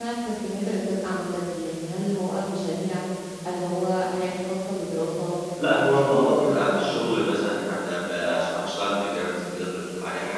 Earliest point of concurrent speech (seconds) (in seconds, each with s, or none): 5.6 s